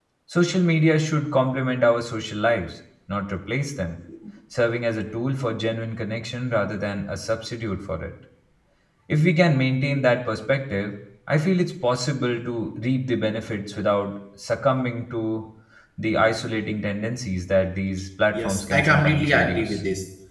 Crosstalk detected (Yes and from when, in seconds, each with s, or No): Yes, from 18.3 s